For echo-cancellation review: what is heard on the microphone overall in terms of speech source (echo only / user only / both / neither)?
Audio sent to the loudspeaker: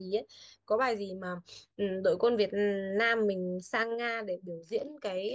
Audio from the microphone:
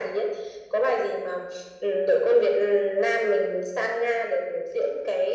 echo only